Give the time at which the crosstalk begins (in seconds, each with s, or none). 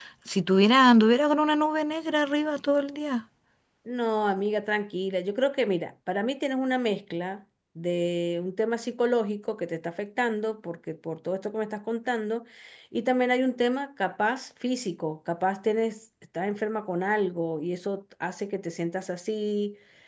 none